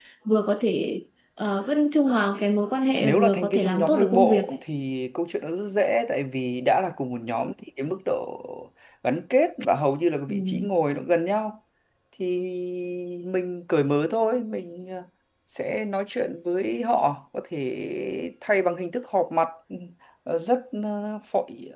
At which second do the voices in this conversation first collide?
3.0 s

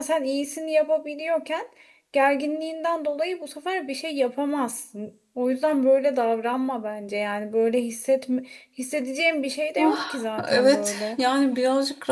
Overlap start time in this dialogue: 9.8 s

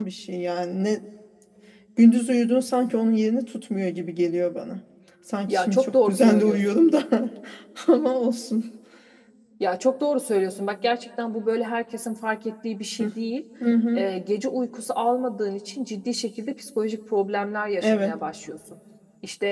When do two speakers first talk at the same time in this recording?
5.5 s

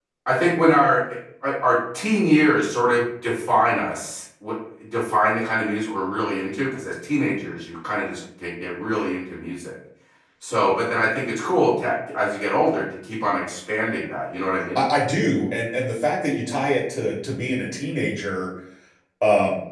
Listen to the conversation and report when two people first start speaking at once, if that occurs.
none

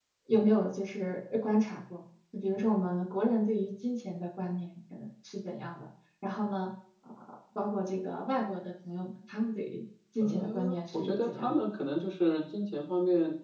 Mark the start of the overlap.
10.2 s

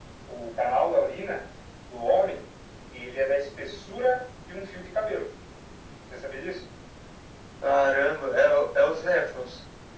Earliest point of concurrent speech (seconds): none

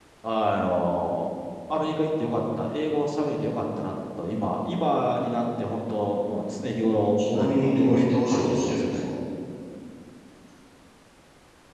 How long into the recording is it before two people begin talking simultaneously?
7.2 s

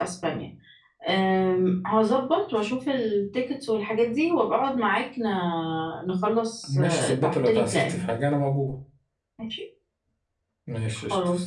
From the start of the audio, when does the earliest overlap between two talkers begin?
6.7 s

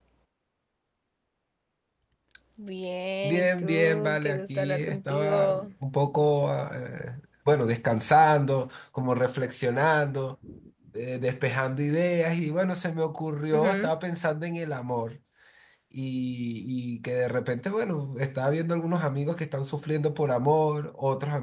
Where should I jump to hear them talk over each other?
3.2 s

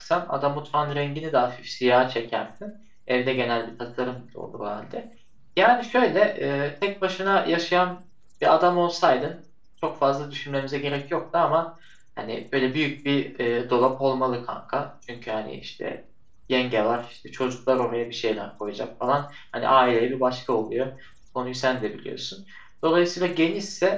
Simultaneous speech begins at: none

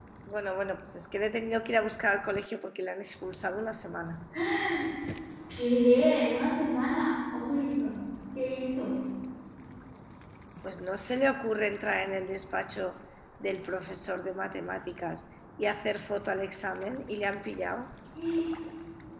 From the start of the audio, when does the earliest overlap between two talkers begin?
none

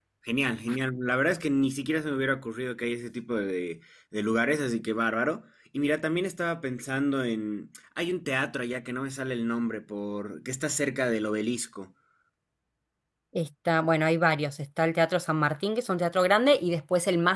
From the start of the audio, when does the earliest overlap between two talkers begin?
none

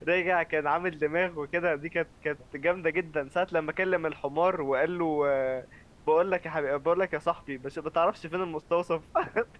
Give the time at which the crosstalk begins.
none

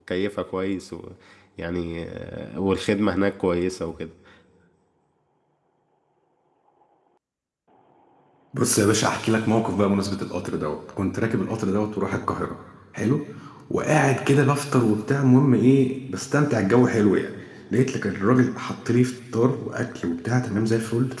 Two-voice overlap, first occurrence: none

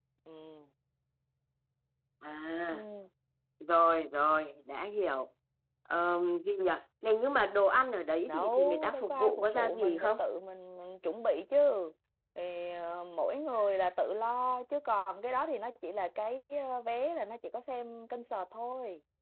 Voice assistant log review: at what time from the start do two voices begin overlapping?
8.3 s

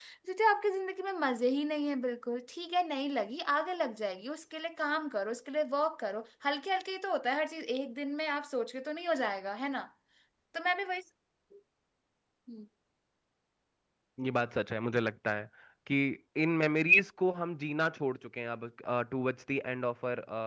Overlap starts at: none

